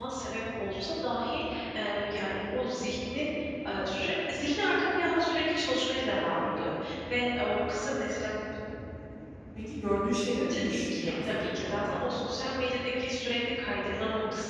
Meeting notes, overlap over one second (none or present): present